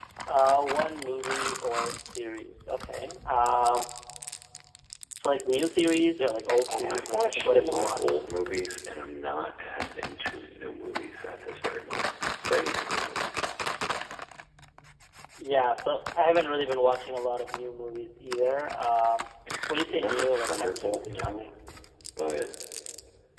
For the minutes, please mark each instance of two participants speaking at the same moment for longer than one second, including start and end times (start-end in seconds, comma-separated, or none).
6.7-8.2, 19.8-21.5